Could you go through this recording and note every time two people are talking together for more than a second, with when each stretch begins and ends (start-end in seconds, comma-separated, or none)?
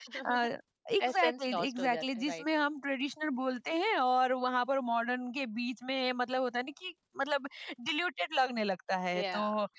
1.1-2.4